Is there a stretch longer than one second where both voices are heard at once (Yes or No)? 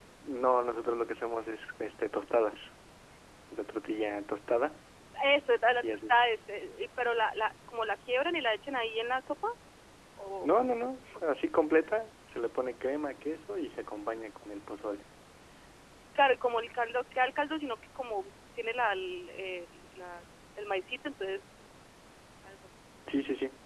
No